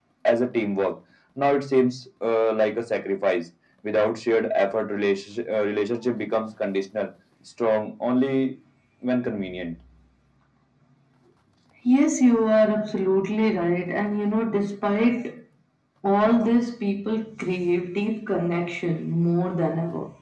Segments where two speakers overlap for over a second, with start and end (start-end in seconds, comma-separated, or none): none